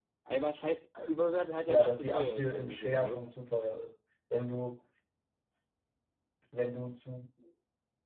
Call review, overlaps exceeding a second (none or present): present